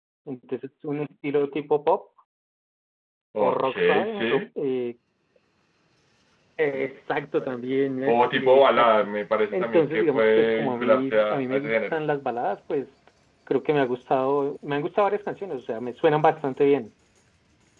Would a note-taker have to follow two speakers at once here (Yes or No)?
Yes